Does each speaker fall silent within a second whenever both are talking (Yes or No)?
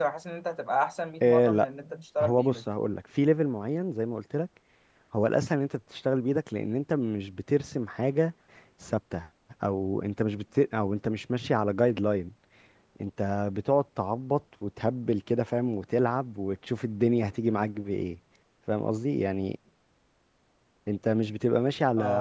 Yes